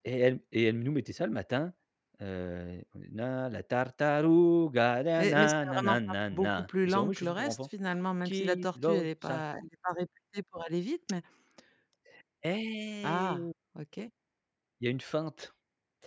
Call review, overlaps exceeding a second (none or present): present